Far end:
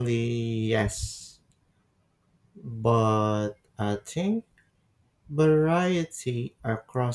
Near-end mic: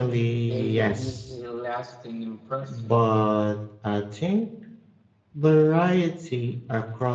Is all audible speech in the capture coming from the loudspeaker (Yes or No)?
No